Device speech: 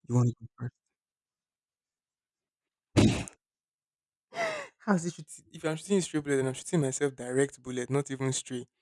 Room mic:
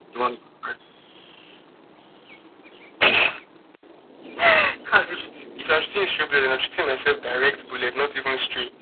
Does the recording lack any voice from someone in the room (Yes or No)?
Yes